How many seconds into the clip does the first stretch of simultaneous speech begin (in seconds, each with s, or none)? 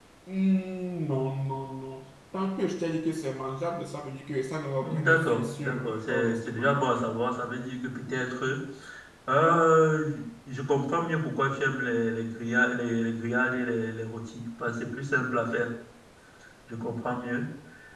4.8 s